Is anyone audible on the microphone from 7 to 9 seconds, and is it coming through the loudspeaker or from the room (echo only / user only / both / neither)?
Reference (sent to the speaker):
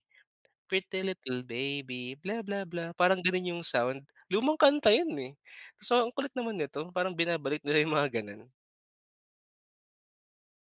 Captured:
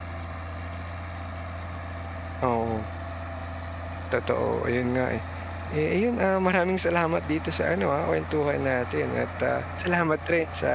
user only